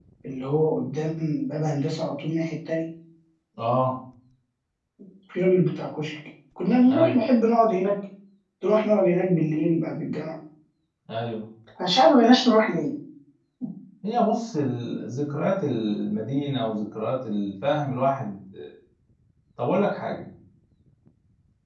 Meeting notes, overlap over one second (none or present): none